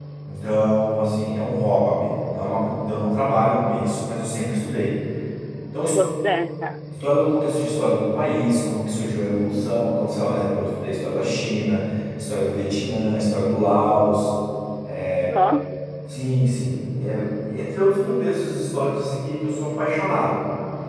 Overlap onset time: none

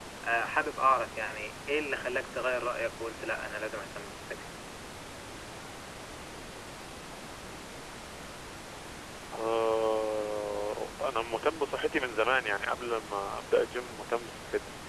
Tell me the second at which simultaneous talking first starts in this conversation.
none

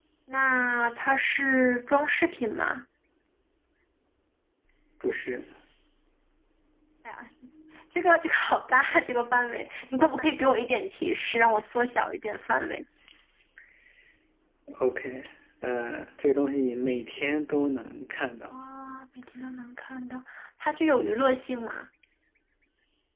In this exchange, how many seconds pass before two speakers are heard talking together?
none

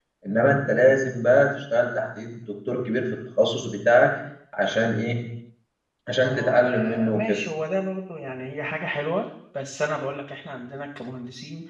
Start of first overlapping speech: 6.2 s

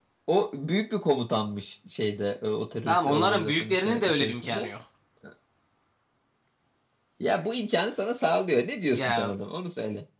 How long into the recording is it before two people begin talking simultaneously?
2.9 s

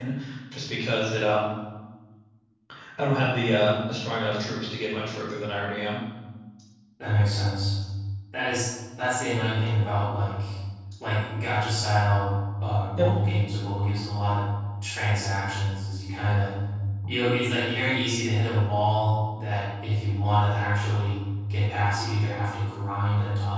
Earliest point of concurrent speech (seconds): none

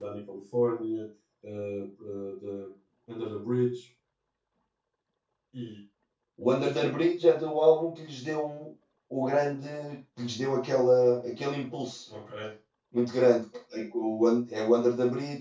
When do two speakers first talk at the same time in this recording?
none

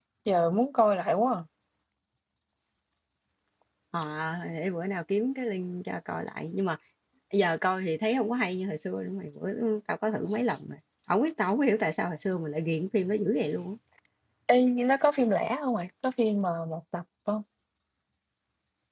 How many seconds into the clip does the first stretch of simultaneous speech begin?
none

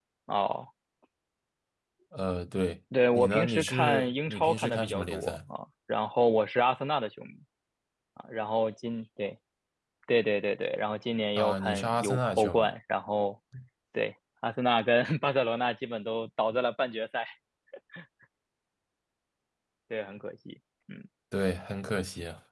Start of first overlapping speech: 3.1 s

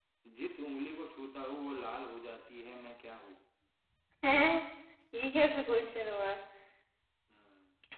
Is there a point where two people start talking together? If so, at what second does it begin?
none

